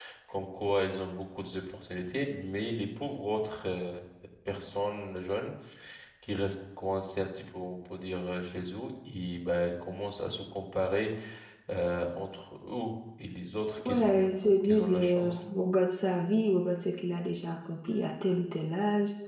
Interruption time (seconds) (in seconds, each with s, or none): 13.8 s